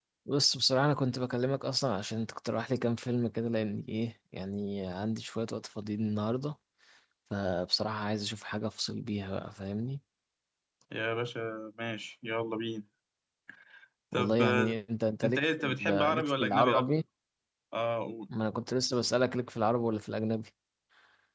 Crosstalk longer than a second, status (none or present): present